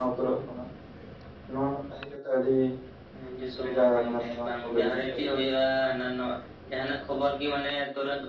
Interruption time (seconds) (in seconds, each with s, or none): 3.6 s